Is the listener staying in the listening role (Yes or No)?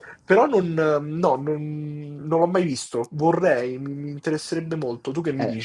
No